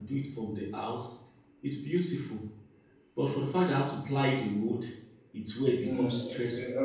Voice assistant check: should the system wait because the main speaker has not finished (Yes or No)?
No